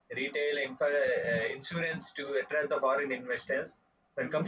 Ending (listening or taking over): listening